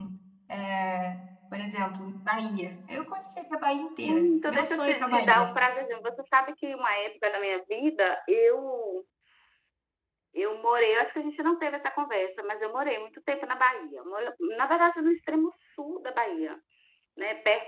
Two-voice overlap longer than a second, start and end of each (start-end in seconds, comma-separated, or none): 4.0-5.5